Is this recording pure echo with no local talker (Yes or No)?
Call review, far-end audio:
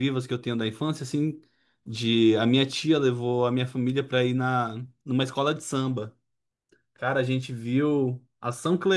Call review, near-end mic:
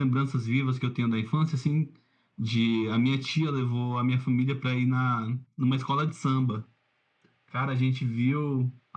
Yes